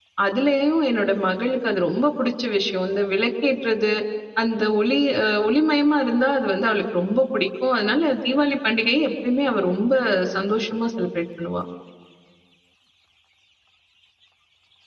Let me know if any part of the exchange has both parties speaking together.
No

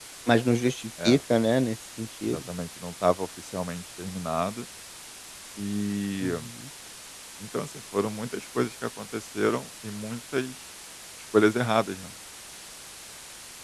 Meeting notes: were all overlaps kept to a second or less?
Yes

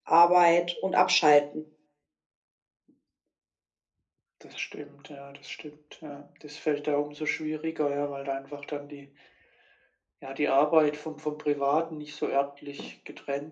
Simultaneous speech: No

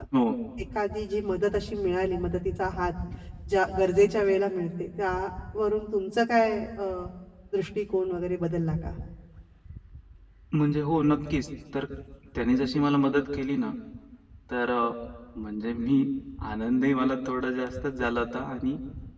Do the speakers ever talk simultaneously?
No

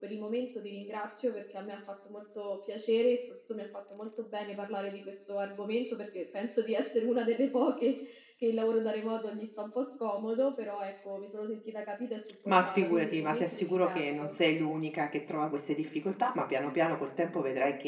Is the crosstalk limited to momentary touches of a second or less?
No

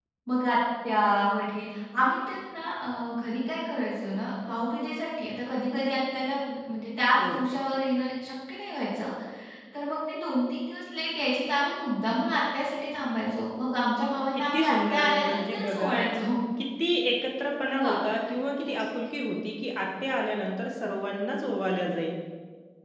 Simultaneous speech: Yes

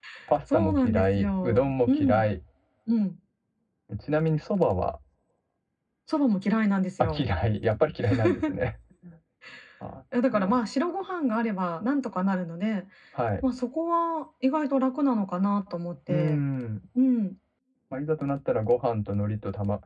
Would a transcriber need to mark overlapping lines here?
Yes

